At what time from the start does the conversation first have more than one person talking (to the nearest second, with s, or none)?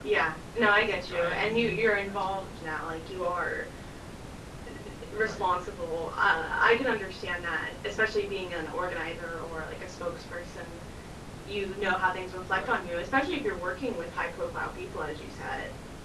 1 s